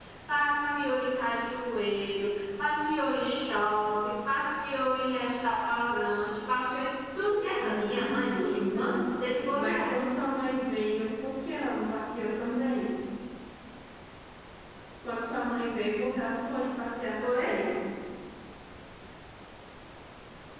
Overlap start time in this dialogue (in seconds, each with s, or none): 7.6 s